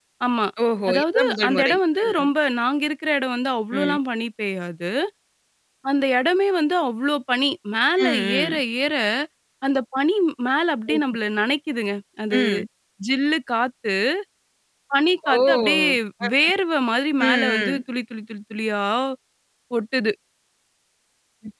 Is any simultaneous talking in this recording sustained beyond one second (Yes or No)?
Yes